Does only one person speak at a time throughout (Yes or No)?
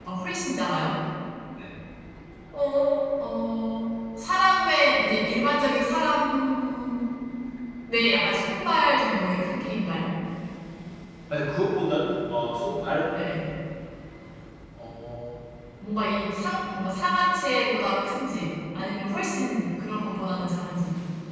Yes